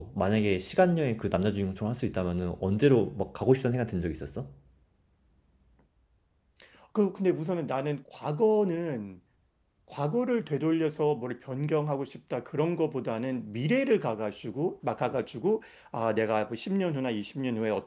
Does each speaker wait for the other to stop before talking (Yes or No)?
Yes